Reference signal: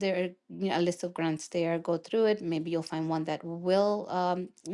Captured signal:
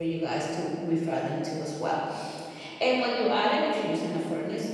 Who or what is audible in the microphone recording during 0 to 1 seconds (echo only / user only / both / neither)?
user only